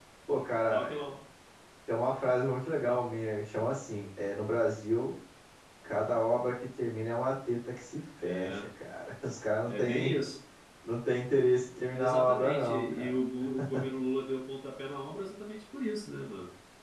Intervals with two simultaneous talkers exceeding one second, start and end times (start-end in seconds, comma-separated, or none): 11.9-13.1